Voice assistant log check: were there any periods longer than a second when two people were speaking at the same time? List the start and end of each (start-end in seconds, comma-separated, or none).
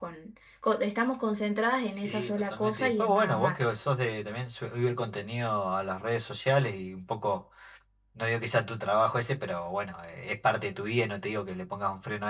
2.0-3.6